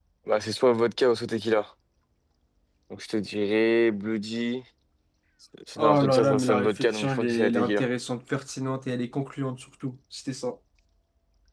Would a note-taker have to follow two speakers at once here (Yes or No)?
Yes